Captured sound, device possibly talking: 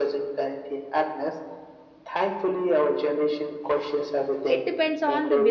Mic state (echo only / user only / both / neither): both